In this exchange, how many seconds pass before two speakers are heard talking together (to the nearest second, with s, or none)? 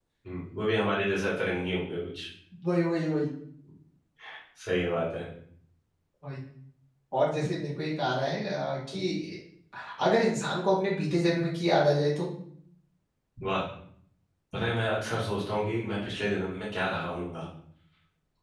none